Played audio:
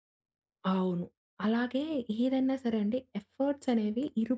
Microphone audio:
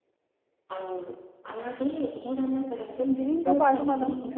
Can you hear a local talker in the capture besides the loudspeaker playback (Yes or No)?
Yes